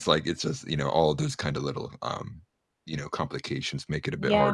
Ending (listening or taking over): taking over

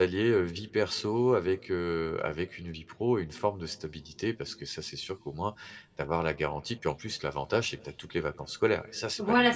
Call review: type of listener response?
taking over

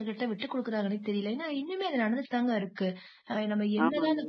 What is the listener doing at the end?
listening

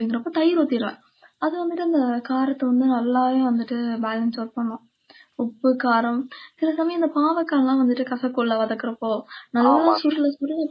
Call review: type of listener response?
listening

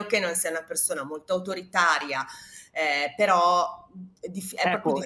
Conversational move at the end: taking over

